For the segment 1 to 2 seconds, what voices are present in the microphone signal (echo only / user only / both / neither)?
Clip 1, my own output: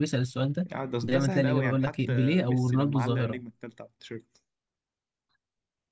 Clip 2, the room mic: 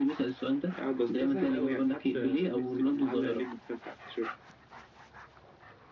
echo only